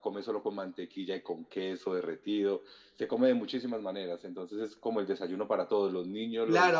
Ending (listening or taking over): taking over